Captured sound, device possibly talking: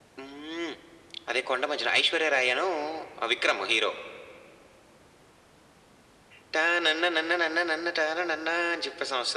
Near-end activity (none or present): none